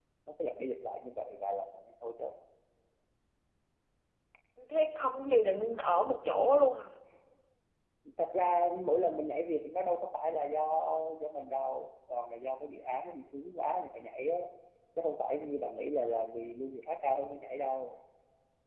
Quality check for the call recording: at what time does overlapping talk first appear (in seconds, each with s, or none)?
none